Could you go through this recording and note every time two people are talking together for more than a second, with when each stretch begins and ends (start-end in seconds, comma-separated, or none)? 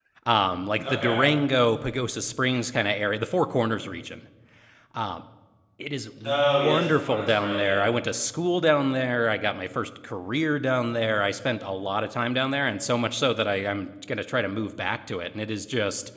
6.2-7.9